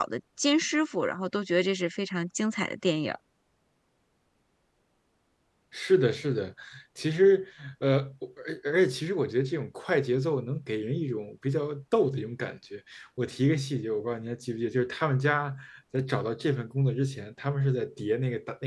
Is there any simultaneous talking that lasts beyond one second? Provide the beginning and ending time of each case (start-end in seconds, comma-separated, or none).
none